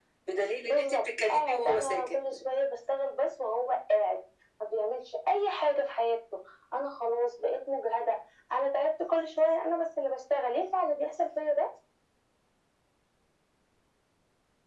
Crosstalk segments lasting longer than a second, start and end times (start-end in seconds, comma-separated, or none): 0.6-2.1